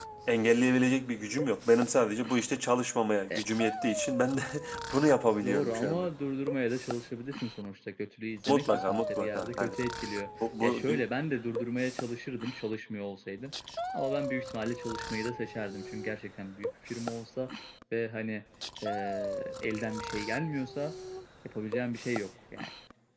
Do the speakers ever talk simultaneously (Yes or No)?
Yes